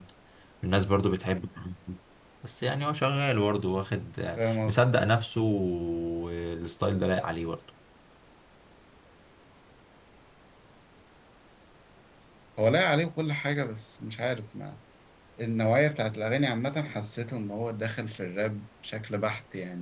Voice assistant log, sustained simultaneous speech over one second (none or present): none